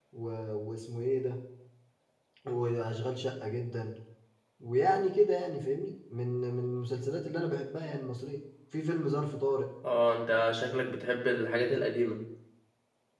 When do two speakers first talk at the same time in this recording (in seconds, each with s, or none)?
none